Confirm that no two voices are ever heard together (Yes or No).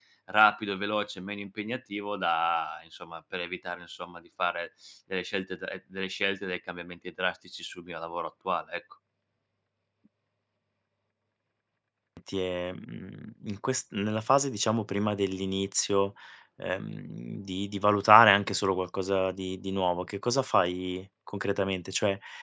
Yes